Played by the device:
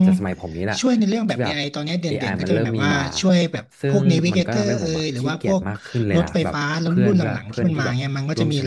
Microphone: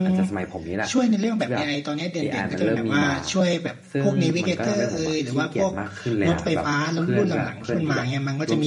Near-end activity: none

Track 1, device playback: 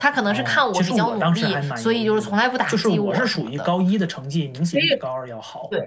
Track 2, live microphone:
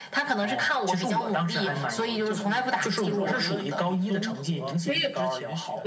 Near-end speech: present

